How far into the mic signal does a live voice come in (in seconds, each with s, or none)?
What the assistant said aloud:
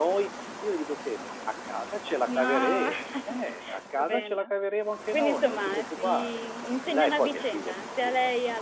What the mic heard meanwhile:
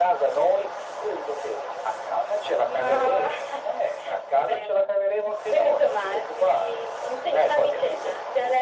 none